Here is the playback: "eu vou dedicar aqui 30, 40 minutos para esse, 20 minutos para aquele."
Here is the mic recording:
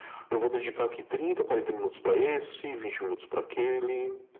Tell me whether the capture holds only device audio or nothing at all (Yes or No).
Yes